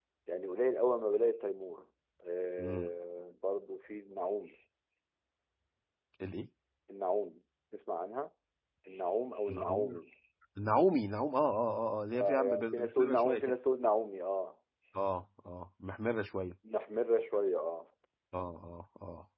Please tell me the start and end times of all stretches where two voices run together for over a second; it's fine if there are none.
12.1-13.5

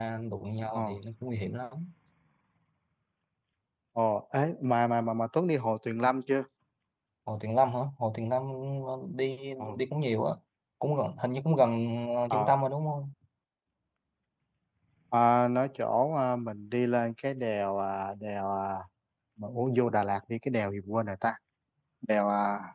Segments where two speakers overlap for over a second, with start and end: none

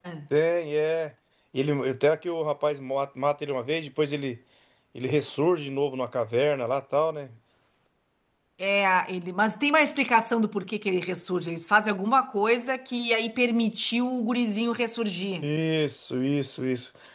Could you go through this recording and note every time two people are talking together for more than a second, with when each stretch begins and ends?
none

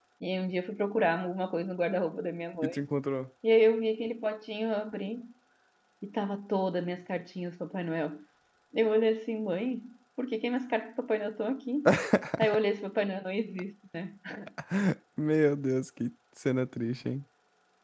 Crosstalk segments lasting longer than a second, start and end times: none

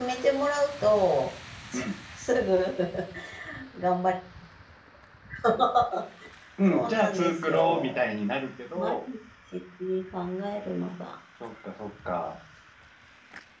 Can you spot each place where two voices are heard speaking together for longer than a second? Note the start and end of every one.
6.7-8.1

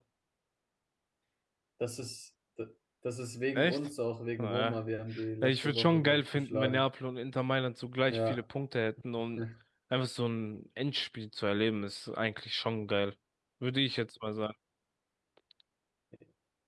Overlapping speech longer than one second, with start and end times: 5.4-6.8

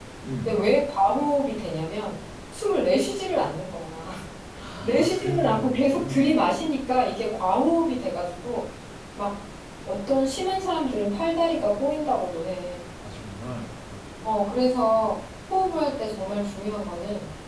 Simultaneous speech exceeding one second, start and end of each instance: 4.8-6.4

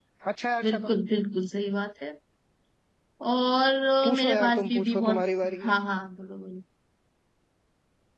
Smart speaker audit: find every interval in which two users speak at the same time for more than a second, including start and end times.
4.0-5.2

